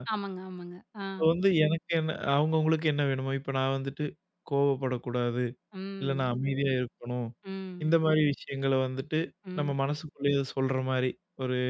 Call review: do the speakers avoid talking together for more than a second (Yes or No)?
Yes